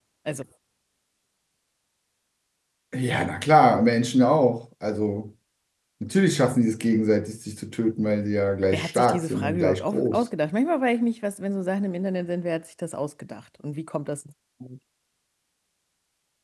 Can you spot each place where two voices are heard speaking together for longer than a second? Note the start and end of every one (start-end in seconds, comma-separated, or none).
8.7-10.2